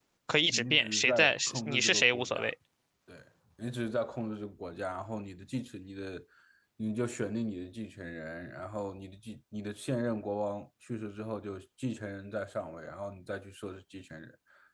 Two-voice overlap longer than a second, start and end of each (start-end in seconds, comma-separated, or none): 0.6-2.5